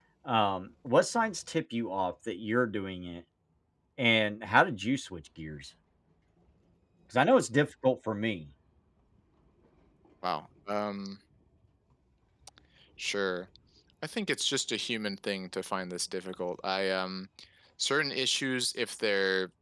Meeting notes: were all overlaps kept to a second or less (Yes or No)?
Yes